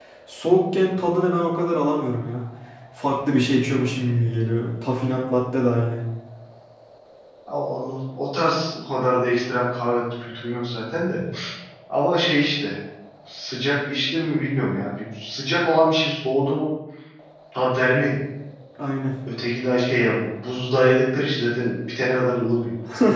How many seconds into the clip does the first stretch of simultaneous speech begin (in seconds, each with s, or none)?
none